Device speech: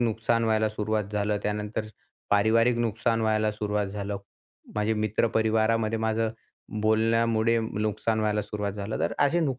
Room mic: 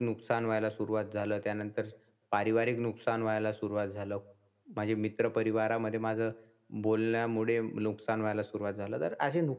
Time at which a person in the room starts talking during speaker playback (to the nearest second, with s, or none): none